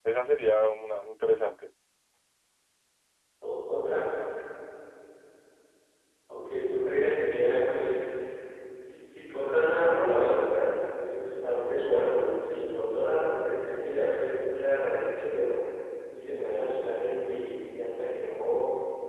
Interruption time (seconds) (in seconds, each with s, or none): none